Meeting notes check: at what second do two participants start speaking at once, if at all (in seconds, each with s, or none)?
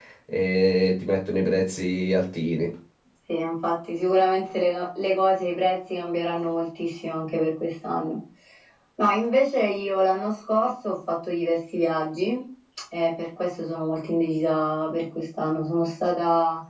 none